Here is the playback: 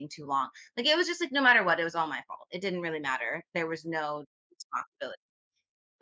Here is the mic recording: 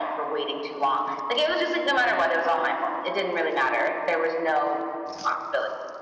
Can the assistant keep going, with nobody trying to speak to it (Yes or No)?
Yes